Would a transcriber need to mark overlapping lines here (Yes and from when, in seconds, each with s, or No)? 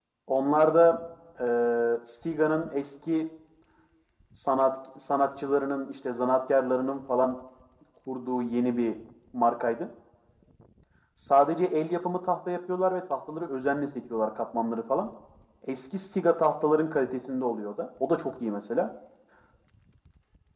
No